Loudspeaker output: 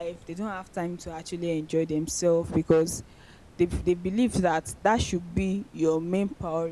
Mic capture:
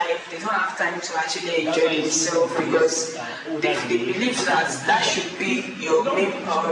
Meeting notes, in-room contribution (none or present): present